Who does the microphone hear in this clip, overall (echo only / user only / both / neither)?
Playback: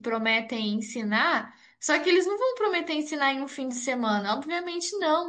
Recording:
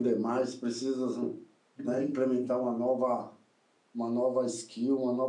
user only